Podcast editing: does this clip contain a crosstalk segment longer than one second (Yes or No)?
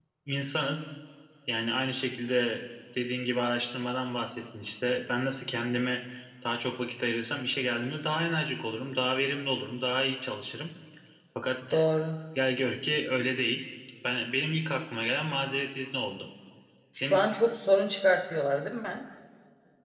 No